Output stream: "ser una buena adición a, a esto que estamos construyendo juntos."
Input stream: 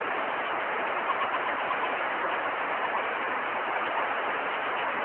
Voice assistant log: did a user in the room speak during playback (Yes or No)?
No